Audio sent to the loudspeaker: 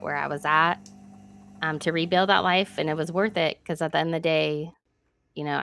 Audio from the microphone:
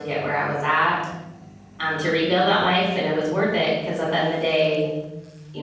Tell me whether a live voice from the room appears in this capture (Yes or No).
No